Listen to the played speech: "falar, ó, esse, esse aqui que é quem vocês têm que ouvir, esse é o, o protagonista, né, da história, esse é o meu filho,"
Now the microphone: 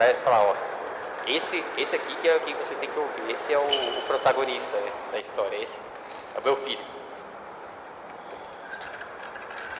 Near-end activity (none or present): none